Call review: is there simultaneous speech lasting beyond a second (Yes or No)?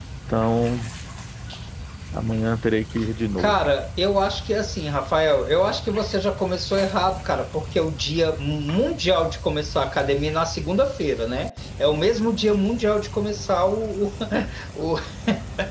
No